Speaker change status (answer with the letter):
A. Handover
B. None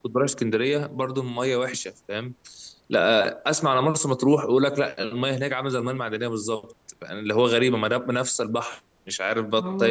A